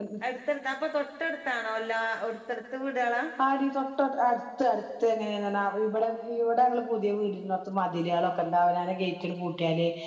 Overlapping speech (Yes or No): No